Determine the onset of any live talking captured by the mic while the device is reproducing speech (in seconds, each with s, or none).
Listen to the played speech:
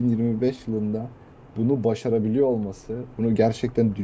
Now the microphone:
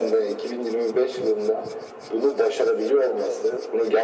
none